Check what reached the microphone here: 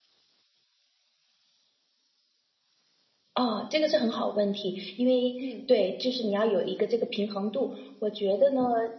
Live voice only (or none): 嗯，